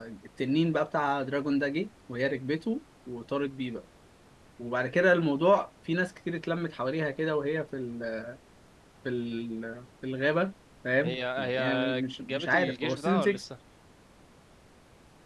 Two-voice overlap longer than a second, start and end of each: 11.5-13.4

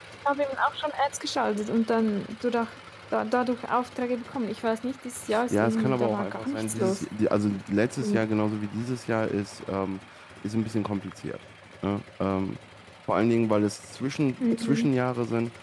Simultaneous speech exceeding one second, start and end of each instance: 5.5-7.0

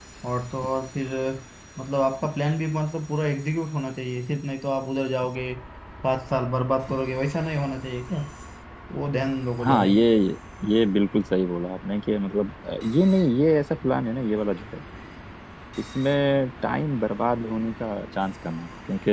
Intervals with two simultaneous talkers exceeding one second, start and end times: none

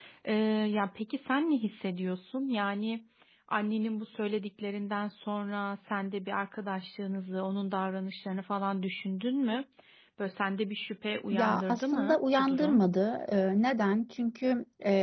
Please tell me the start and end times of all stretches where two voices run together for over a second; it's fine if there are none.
11.3-12.8

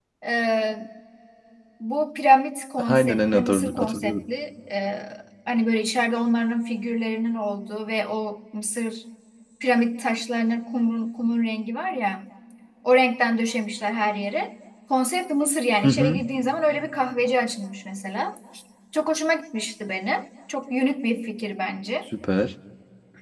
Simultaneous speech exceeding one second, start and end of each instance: 2.9-4.2

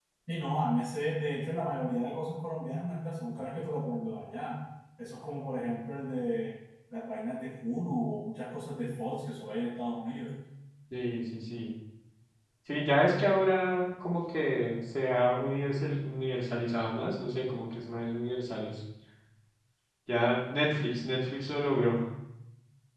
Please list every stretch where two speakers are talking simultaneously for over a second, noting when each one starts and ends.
none

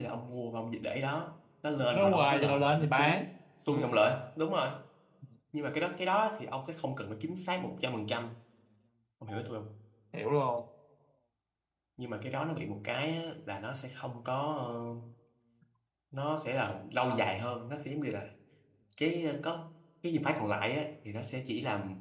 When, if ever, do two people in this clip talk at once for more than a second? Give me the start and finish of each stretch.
1.9-3.2

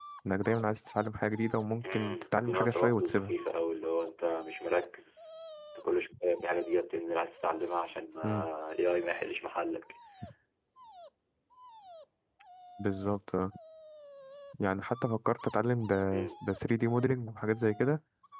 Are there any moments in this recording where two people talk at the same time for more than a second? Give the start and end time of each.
1.7-3.3

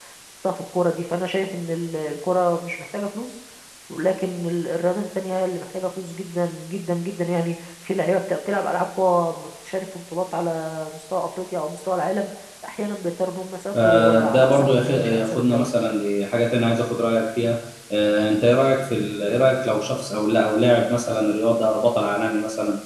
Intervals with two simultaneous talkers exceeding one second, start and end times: 13.7-15.7

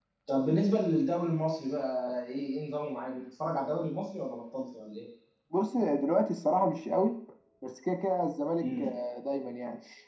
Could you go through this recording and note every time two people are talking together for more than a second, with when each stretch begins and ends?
none

